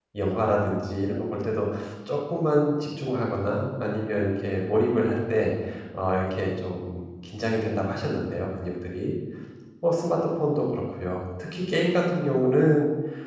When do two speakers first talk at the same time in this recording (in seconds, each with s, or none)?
none